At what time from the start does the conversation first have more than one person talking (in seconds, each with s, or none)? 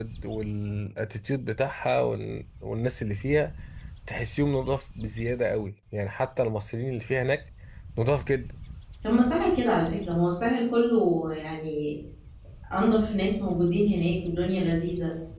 none